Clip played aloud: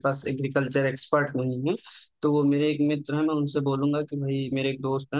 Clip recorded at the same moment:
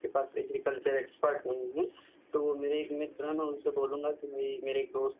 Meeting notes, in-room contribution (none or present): none